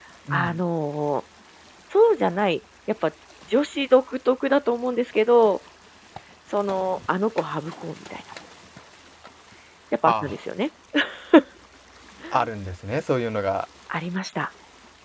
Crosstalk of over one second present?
No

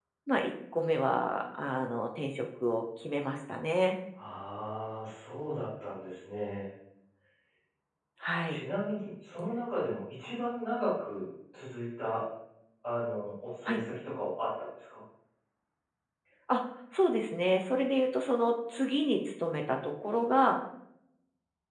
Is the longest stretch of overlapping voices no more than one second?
Yes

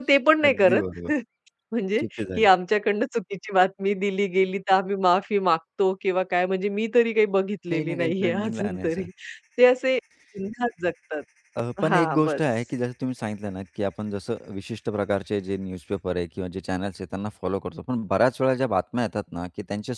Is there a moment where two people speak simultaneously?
Yes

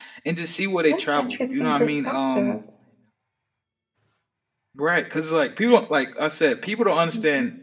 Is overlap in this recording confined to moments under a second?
No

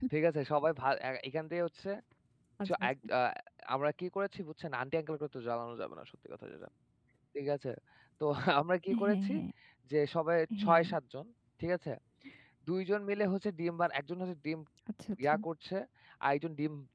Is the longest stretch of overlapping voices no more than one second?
Yes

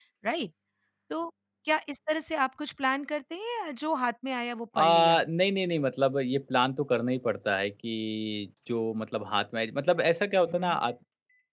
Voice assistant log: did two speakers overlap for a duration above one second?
No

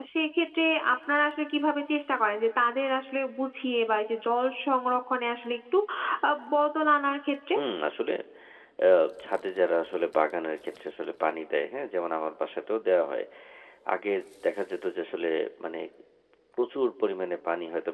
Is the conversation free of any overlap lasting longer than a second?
Yes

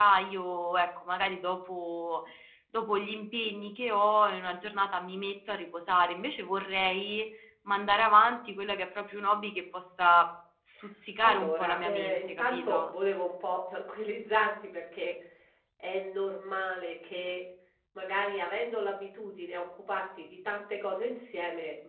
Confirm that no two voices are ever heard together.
No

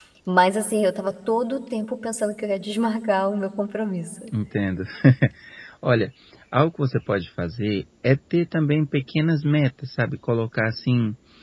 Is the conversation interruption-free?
Yes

